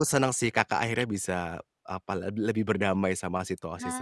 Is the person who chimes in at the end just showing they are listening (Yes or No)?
No